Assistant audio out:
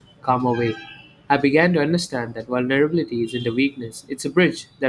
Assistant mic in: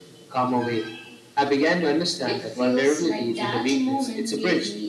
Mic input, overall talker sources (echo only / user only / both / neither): both